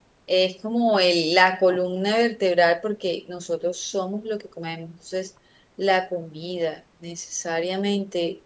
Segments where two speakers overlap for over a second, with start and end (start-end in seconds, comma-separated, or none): none